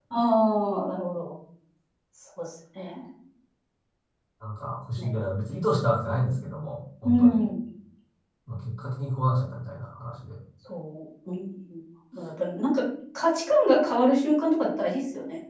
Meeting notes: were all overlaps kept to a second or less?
Yes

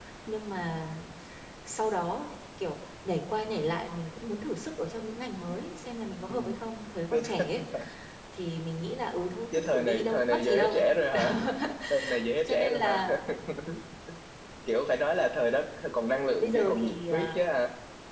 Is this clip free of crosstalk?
No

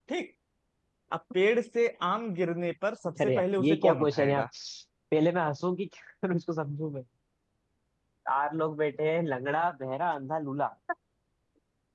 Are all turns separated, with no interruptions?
No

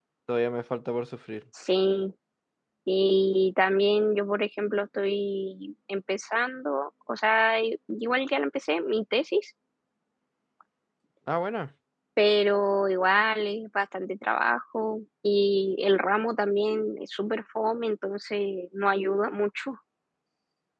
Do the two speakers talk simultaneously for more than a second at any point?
No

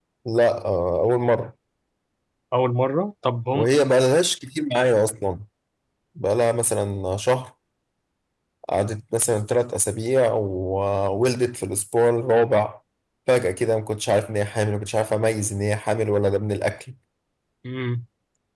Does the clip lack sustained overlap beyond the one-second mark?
Yes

